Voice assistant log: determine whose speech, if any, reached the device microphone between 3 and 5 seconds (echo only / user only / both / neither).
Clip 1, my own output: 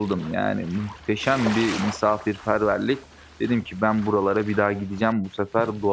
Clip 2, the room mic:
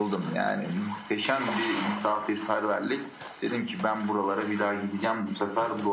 echo only